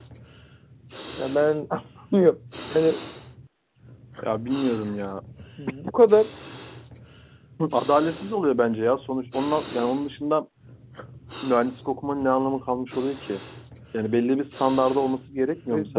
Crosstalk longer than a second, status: none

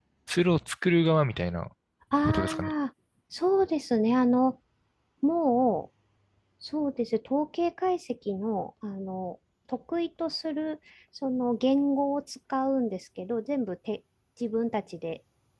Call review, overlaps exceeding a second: none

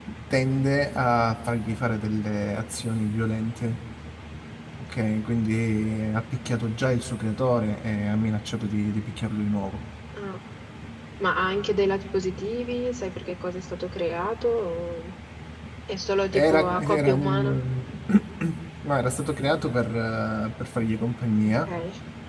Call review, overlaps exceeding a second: present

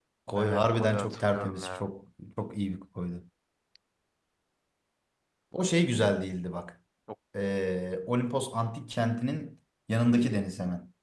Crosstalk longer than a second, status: present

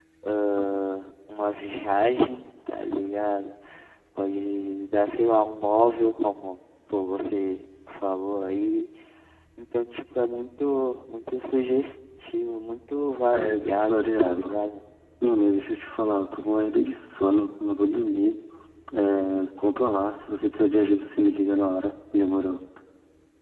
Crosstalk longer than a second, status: present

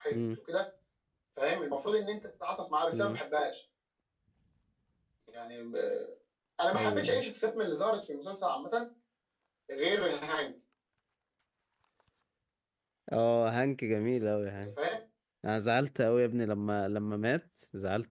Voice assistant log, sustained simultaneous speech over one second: none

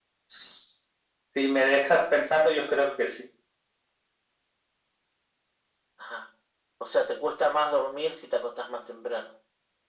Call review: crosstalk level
none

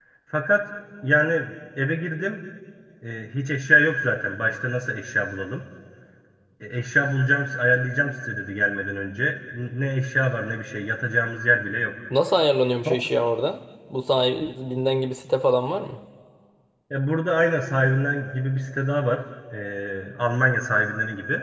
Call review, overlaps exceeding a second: none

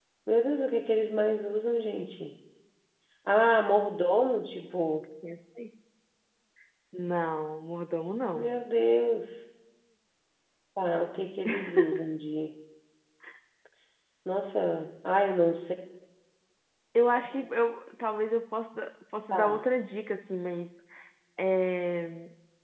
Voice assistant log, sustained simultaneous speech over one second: none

